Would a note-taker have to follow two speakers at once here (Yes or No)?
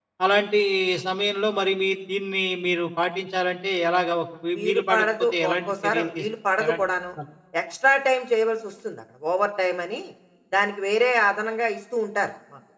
Yes